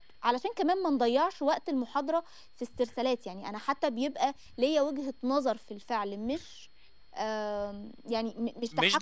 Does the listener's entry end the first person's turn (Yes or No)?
Yes